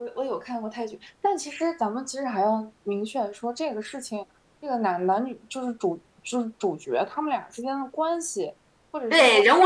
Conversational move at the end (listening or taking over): taking over